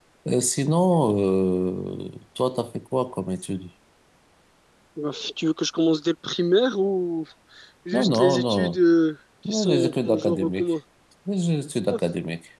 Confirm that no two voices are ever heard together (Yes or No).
No